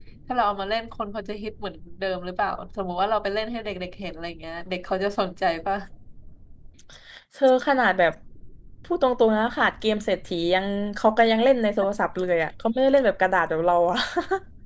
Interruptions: none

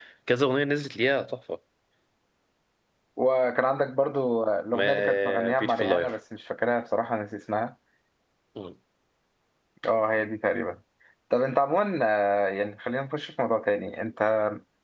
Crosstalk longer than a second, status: present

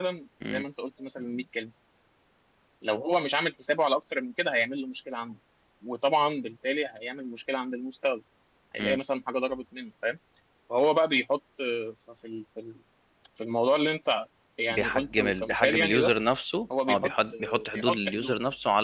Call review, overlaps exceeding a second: present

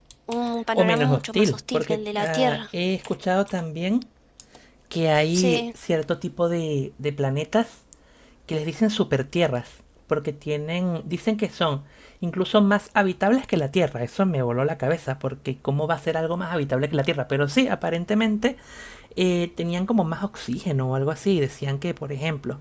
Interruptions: present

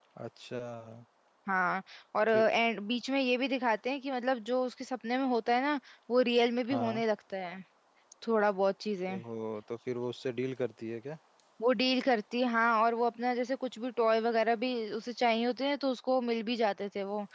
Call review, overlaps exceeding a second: none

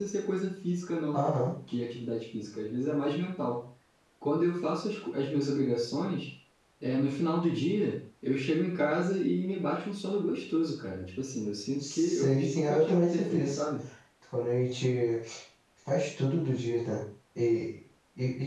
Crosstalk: present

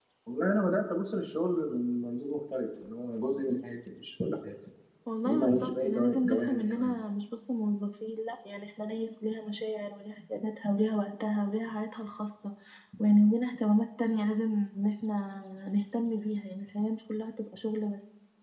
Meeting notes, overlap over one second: present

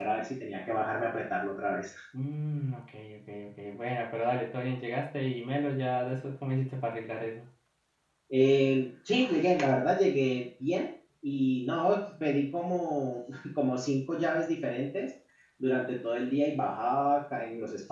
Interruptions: none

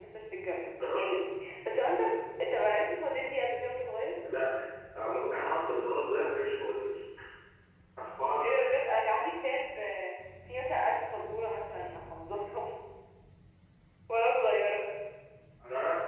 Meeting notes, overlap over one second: none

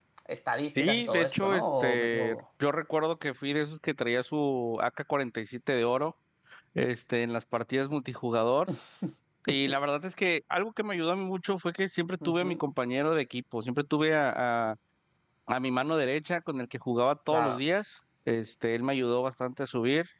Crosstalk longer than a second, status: present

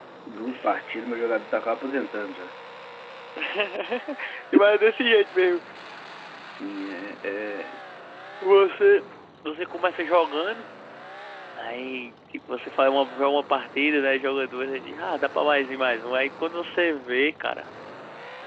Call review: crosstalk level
none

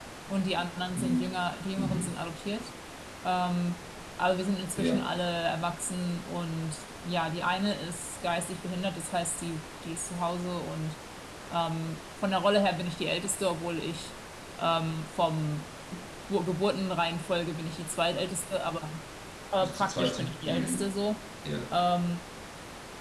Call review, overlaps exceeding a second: present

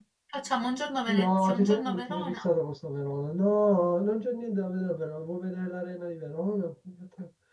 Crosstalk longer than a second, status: present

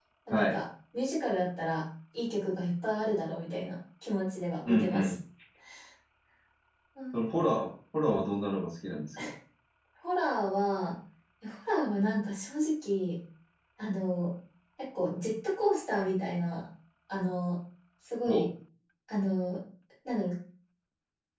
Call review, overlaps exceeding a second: none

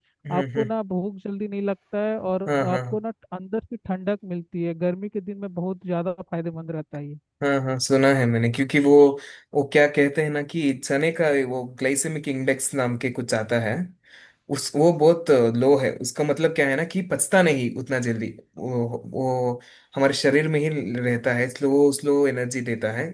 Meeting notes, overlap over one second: none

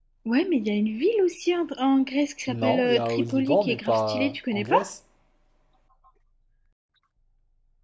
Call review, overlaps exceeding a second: present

